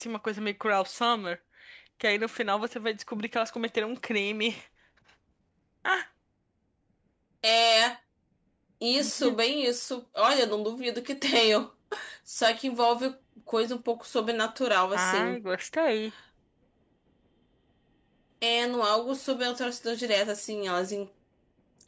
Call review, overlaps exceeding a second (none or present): none